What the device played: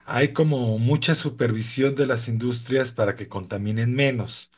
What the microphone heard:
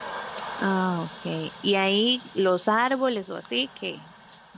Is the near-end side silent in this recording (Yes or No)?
No